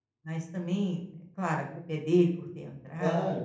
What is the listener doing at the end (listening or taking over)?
taking over